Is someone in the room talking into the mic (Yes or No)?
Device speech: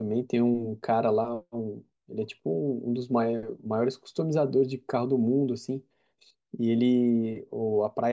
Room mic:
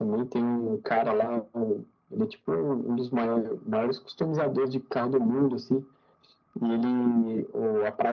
No